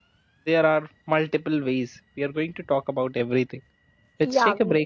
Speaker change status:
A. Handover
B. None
A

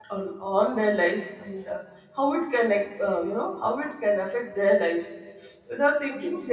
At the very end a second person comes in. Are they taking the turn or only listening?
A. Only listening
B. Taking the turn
A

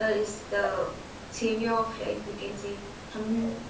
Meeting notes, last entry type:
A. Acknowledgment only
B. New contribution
A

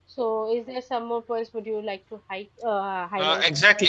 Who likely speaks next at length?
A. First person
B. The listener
B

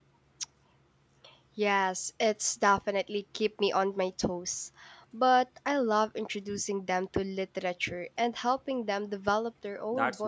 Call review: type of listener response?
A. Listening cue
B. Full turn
B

